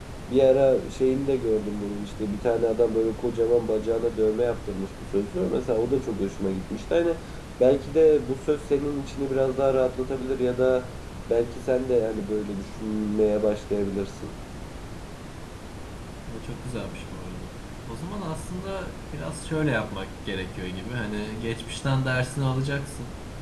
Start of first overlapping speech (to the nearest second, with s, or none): none